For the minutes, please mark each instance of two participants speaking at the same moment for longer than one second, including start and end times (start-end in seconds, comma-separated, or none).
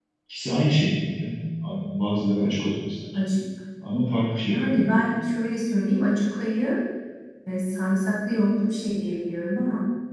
none